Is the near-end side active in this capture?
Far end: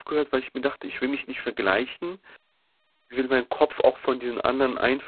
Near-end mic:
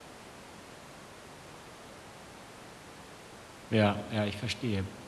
Yes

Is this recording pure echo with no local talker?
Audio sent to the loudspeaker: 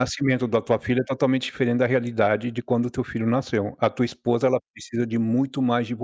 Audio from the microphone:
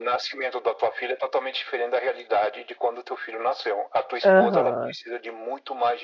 No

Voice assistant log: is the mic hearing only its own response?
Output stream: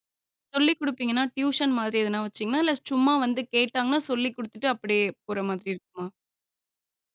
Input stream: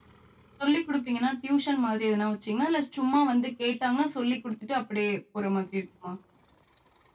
Yes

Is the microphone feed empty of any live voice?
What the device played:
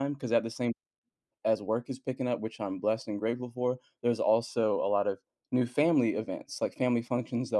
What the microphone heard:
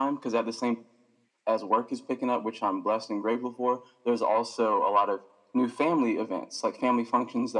Yes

